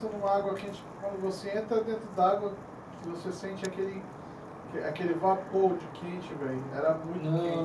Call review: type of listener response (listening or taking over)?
taking over